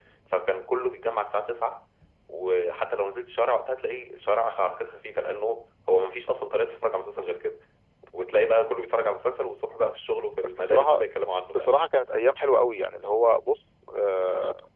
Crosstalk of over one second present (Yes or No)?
No